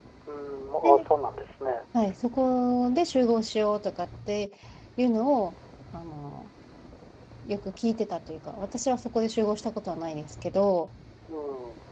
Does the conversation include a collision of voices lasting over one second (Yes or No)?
No